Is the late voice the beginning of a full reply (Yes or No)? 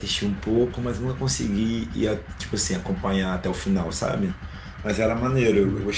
No